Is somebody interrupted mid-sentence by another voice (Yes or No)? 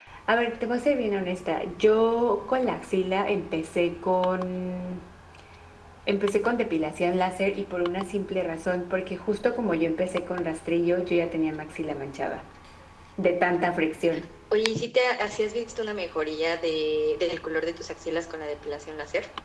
No